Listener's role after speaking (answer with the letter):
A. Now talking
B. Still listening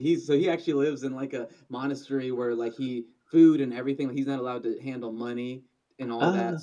B